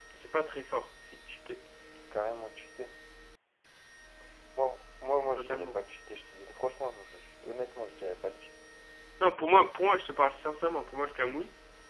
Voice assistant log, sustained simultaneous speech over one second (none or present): none